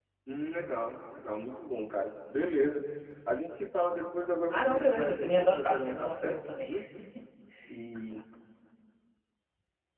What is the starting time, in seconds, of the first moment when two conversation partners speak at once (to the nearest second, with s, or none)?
5 s